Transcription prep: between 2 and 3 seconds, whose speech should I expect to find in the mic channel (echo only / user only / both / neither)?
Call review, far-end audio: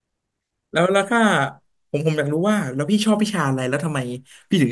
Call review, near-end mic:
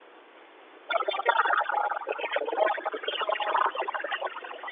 echo only